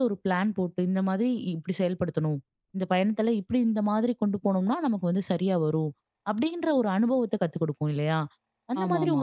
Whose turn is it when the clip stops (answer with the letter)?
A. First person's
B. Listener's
A